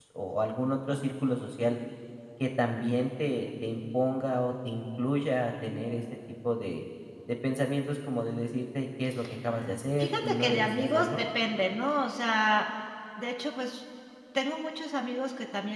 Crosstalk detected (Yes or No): Yes